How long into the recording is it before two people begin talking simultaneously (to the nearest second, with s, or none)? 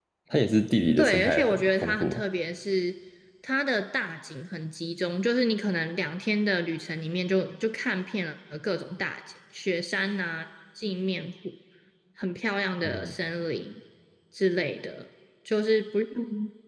1 s